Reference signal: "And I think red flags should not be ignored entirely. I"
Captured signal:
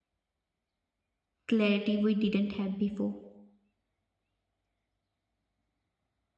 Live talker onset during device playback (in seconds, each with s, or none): 1.4 s